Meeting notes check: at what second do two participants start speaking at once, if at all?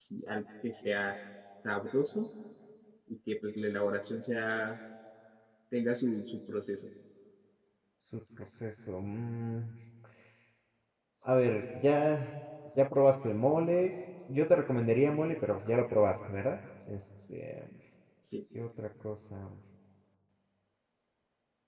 none

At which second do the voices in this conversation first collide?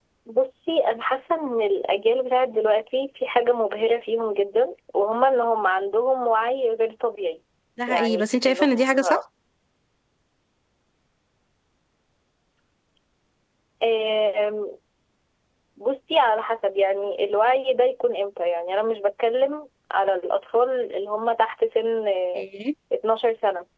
7.9 s

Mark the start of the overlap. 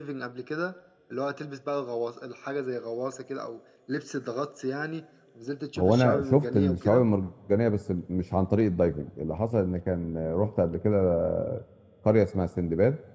5.8 s

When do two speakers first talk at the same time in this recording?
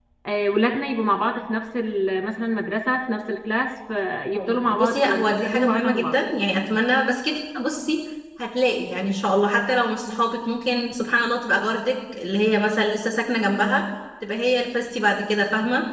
4.2 s

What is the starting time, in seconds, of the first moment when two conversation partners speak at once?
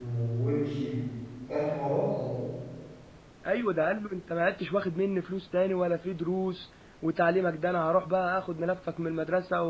none

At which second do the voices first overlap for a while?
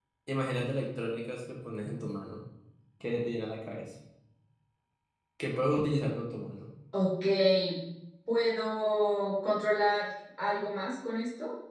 none

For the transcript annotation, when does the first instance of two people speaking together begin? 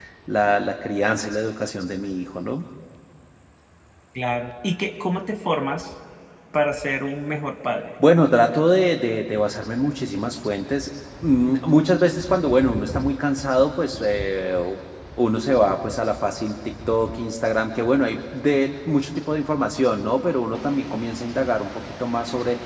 none

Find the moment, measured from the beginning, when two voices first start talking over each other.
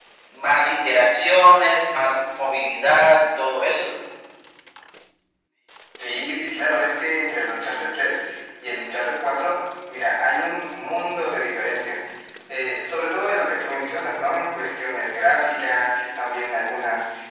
none

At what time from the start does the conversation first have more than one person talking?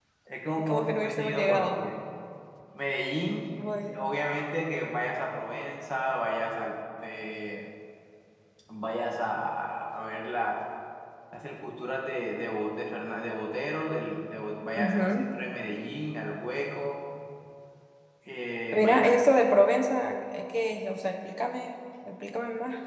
0.6 s

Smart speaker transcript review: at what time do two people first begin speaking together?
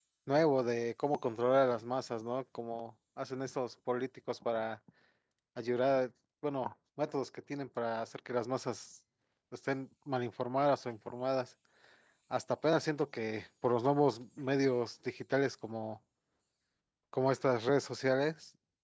none

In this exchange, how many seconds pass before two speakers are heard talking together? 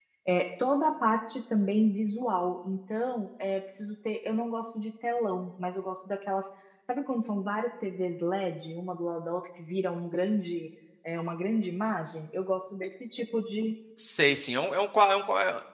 none

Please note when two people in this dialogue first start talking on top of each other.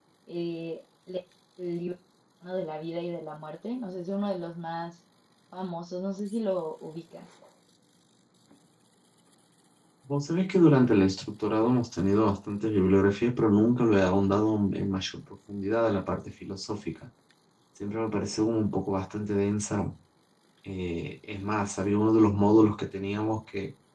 none

